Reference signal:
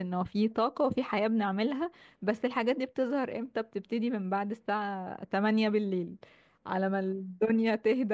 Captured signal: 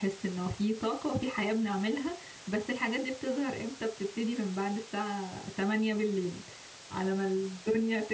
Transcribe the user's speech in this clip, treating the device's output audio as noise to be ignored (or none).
none